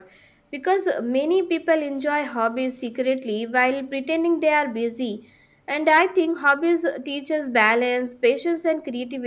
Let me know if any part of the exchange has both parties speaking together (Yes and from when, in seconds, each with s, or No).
No